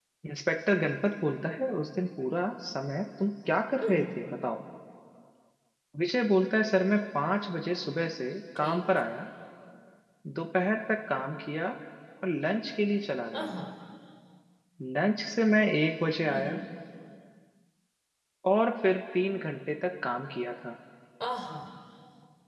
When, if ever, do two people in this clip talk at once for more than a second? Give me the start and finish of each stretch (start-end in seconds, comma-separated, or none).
none